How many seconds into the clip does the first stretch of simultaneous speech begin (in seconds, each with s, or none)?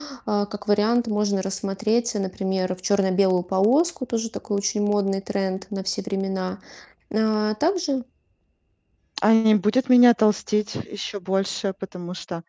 none